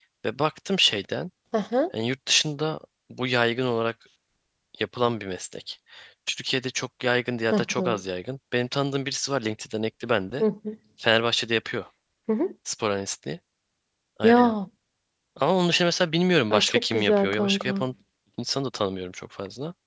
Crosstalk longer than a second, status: present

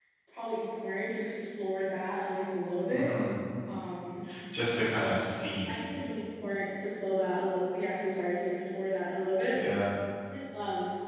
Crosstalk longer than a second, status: none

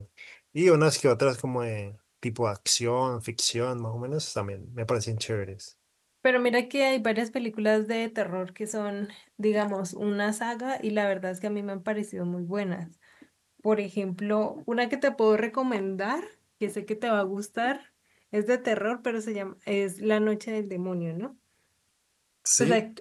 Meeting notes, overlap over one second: none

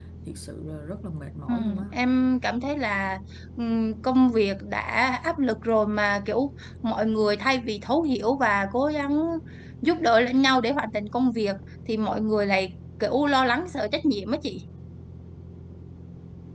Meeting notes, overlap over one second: none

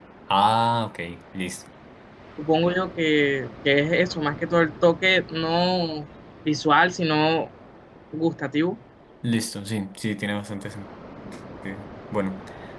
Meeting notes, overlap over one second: none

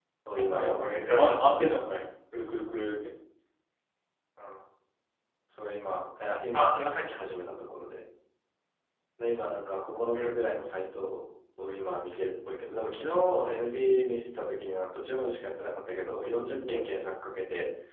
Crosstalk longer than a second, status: present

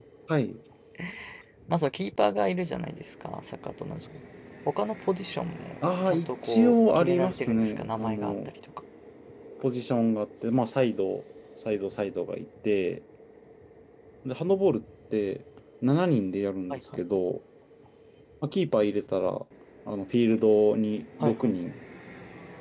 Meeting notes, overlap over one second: present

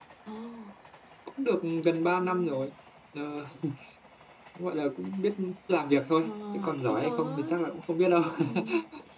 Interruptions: present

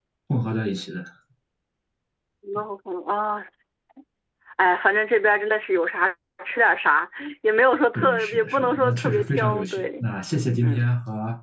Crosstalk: present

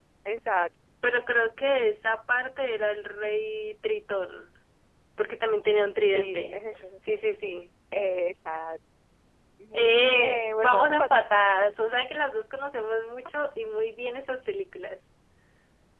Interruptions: present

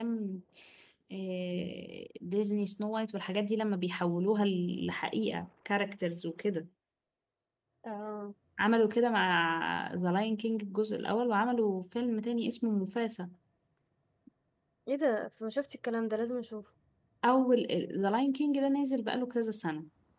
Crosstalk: none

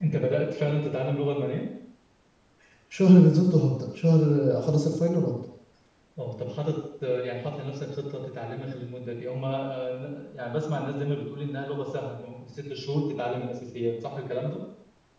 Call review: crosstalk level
none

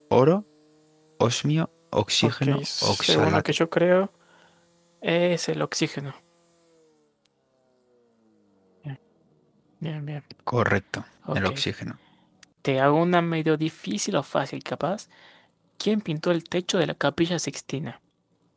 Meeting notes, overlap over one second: present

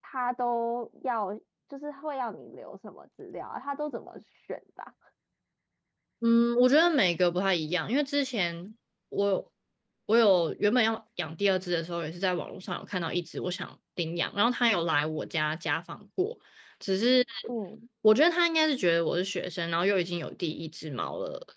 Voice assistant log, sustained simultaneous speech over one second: none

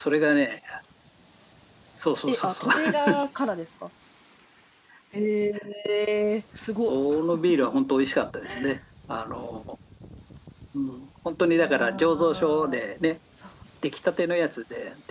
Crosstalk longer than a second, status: present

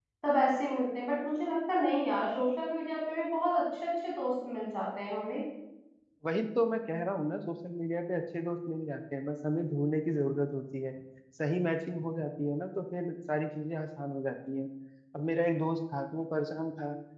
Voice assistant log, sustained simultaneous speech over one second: none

